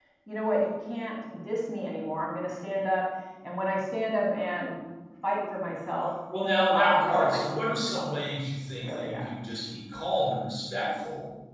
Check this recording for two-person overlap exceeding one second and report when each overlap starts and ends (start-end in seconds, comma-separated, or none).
6.7-8.2